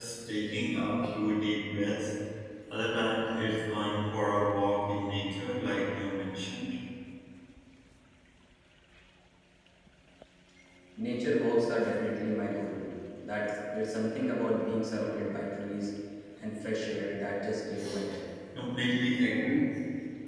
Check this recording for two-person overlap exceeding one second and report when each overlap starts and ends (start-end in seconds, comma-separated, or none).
none